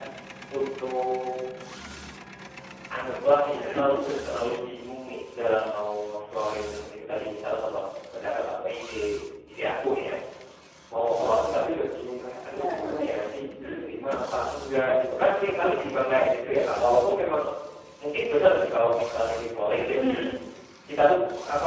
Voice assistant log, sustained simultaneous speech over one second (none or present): none